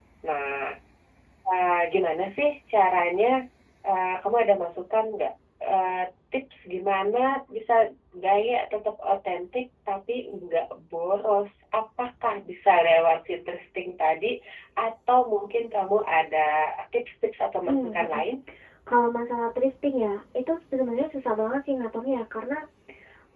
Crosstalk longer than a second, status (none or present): none